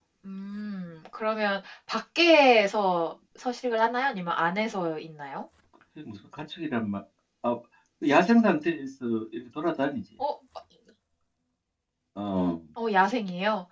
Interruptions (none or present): none